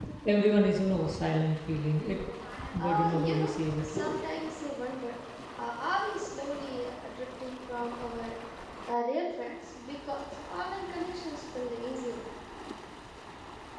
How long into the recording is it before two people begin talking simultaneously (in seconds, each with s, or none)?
2.8 s